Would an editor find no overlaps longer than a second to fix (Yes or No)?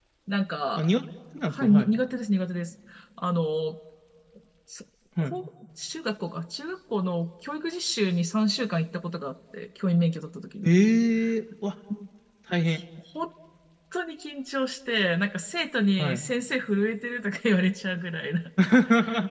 Yes